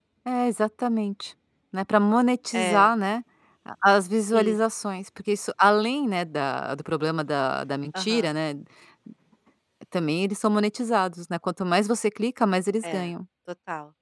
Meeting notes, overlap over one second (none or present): none